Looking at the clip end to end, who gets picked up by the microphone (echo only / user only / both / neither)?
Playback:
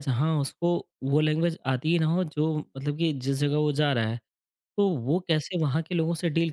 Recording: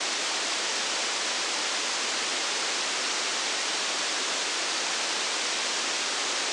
neither